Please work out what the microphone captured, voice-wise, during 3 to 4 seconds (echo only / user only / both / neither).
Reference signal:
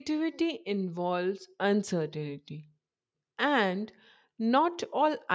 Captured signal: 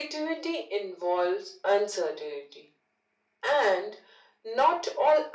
echo only